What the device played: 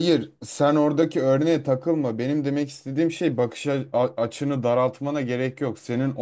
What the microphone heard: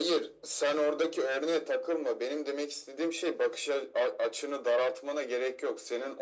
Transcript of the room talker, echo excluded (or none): none